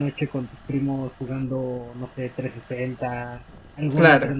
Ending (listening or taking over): listening